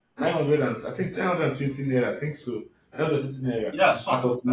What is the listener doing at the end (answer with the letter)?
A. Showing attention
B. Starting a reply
B